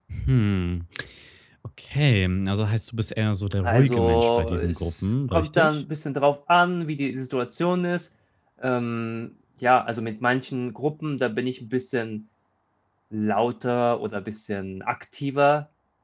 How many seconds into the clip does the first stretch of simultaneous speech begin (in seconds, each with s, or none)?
3.6 s